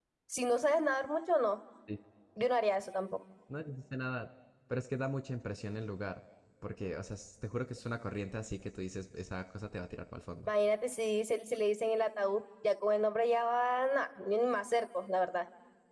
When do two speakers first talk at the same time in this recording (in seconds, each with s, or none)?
none